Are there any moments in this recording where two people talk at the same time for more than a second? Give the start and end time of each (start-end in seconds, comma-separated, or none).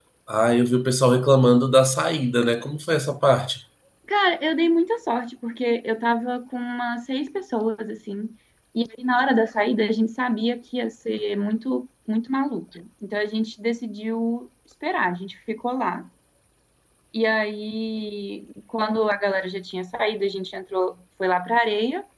none